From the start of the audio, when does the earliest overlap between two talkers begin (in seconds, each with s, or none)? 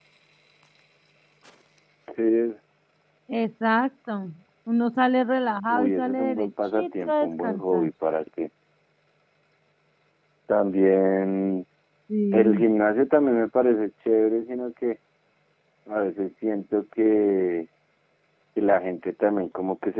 5.7 s